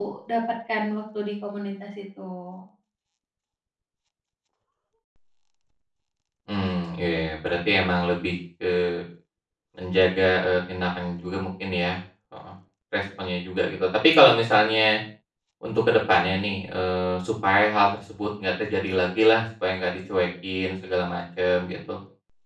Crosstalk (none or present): none